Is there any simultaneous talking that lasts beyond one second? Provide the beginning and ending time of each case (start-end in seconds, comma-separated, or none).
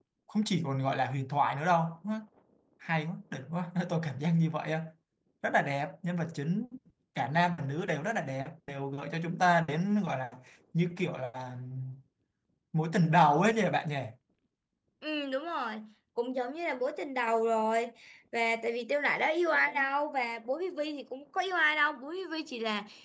none